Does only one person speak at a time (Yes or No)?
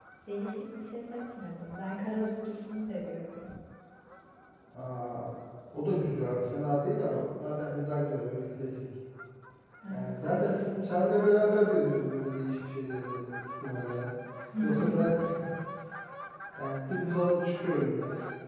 No